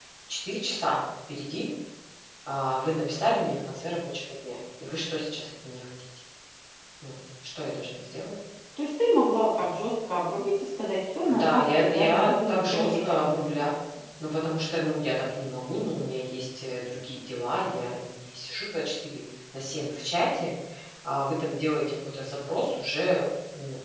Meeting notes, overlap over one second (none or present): present